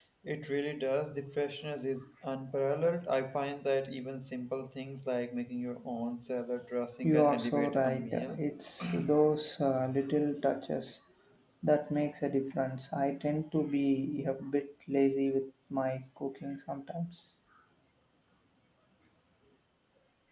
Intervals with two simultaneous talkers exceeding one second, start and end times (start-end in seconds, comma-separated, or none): 7.0-8.4